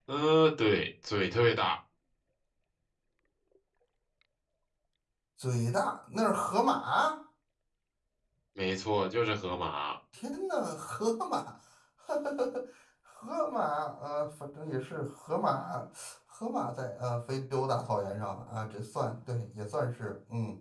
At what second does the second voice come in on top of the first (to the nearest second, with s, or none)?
none